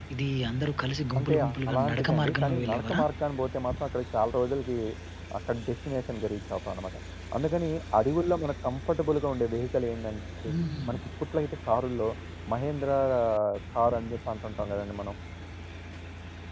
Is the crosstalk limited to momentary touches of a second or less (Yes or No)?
No